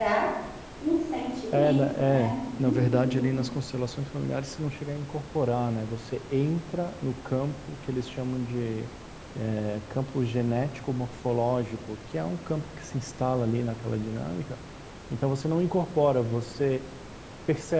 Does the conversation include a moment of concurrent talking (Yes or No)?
Yes